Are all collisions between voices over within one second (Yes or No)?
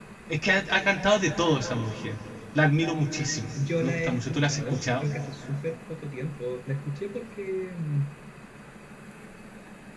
No